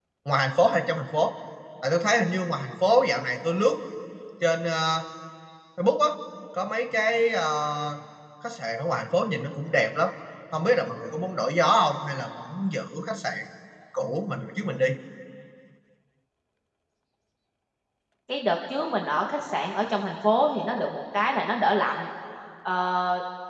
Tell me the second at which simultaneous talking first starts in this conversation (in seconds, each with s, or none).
none